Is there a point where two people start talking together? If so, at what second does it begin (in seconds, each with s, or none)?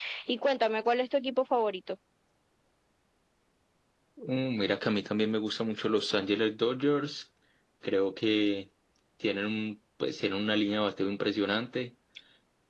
none